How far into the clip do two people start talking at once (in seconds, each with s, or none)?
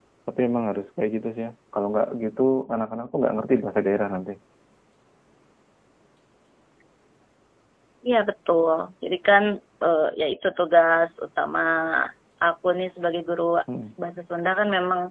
none